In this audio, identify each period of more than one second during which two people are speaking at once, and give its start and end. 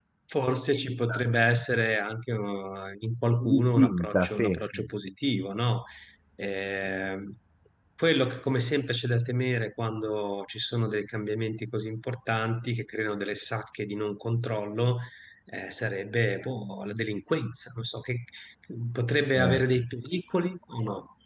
3.4-4.8

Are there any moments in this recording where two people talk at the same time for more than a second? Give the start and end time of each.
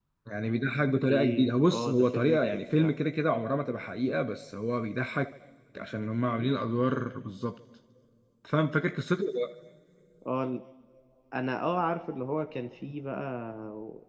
1.0-2.9

